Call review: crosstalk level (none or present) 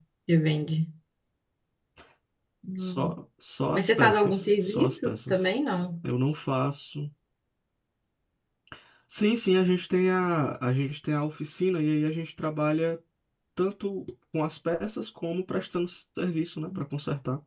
present